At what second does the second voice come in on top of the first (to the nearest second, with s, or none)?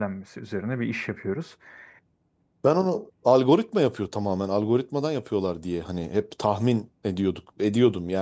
none